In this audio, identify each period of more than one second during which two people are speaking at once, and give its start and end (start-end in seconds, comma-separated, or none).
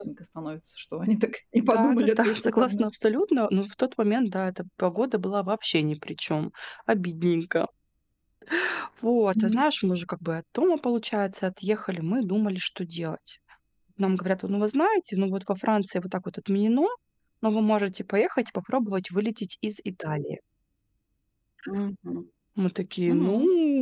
1.6-2.9